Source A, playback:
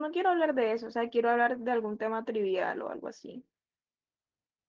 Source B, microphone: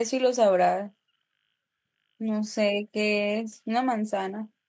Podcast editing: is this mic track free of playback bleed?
Yes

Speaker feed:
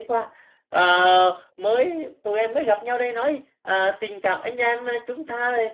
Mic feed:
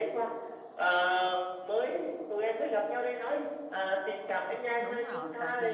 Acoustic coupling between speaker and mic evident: Yes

